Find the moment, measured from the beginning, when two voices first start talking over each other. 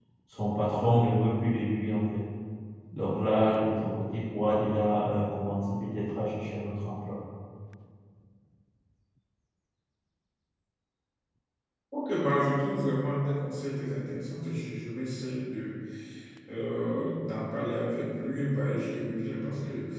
none

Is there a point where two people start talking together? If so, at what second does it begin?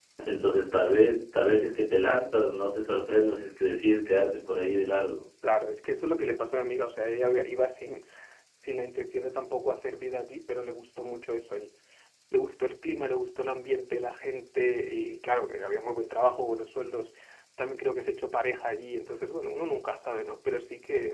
none

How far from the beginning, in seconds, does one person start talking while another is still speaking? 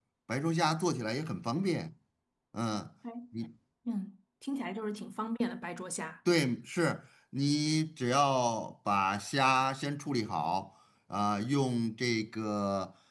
none

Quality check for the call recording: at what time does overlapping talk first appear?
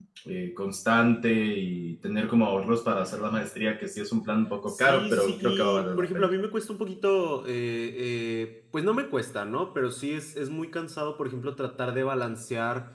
4.7 s

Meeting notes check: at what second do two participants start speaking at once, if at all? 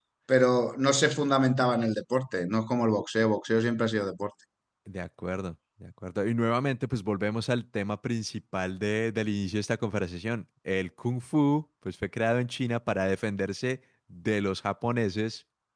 none

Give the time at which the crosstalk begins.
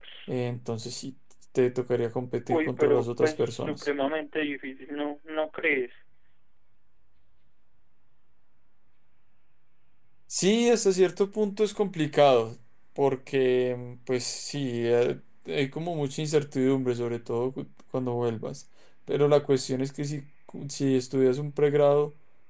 2.5 s

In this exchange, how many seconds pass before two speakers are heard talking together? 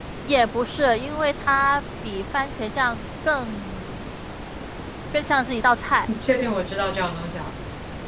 none

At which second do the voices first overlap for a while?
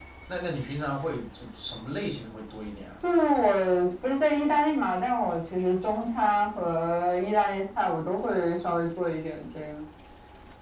none

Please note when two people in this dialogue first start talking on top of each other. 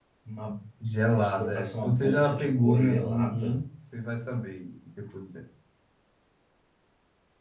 1.1 s

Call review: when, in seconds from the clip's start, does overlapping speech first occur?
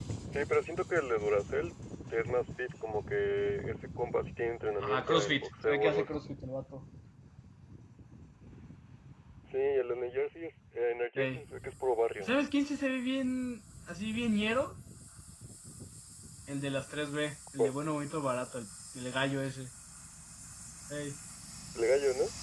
4.8 s

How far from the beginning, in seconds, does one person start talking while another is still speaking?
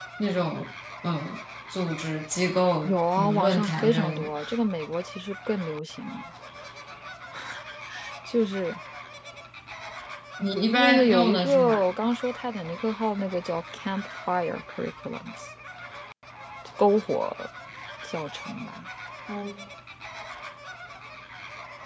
2.8 s

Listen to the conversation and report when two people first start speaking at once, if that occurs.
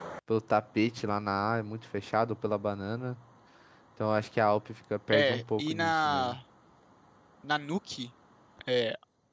5.1 s

